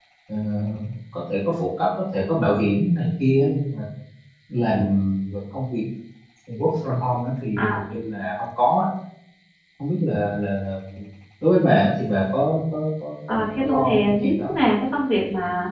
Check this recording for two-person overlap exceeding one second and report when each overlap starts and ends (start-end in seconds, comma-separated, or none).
13.3-14.5